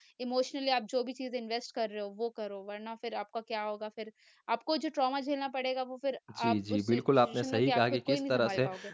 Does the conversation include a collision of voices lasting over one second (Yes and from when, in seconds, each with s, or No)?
Yes, from 6.3 s